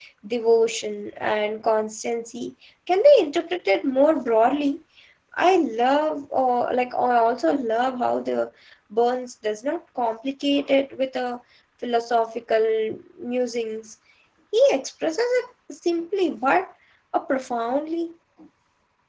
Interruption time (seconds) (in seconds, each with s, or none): none